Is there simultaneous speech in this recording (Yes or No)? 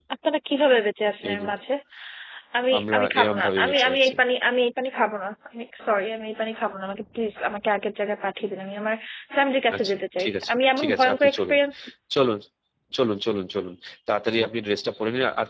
Yes